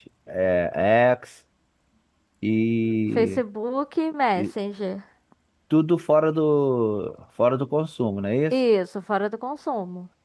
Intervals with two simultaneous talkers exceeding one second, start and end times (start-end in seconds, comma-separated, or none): none